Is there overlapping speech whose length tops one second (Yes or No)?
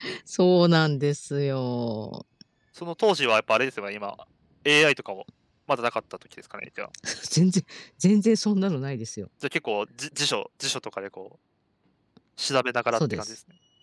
No